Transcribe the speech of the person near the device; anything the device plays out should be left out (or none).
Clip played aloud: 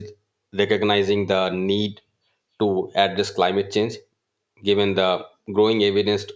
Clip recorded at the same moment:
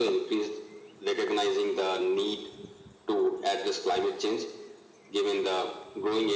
none